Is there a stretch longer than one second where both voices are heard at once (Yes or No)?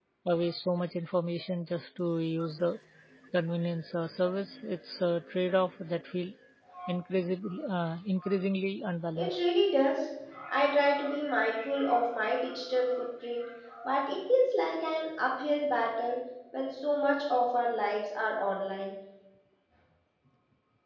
No